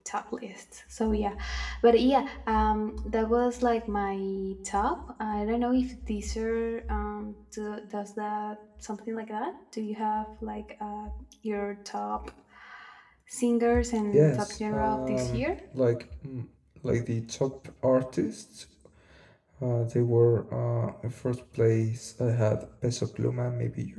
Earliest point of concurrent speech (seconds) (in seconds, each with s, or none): 14.1 s